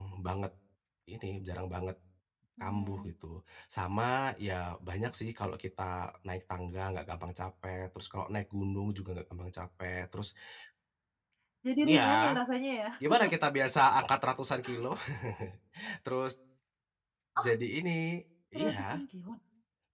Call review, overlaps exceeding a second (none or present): none